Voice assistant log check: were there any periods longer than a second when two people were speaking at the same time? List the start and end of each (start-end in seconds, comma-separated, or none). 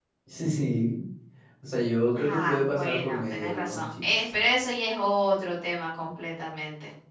2.1-4.3